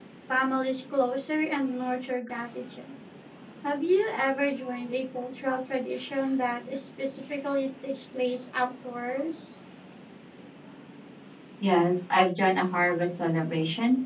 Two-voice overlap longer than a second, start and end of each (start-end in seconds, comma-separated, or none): none